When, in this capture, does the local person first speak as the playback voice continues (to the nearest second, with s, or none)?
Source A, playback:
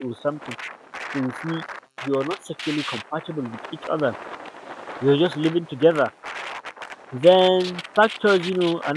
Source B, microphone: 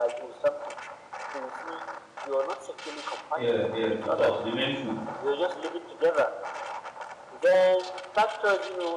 3 s